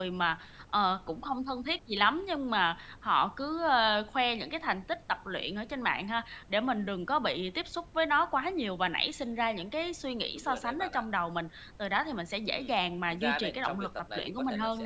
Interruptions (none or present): present